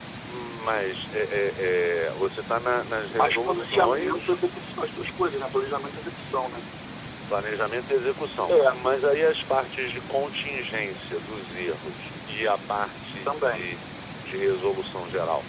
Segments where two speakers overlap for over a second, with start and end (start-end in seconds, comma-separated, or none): 3.0-4.4